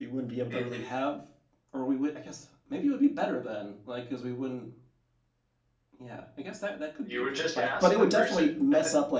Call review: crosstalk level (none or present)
present